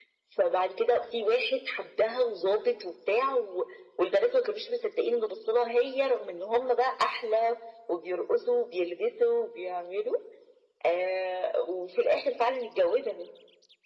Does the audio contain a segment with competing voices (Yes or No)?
No